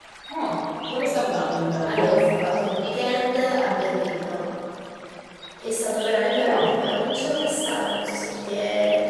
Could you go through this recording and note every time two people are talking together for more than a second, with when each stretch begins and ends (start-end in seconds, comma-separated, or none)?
none